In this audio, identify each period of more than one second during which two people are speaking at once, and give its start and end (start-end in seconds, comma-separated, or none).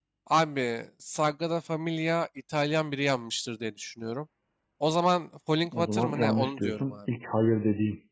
5.7-6.9